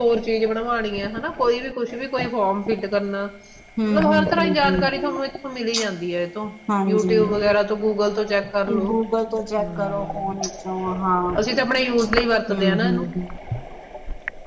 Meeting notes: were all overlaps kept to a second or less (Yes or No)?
No